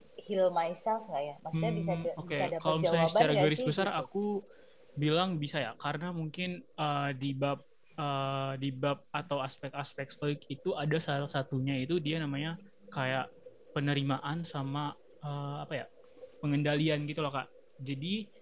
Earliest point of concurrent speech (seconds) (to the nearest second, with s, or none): 2 s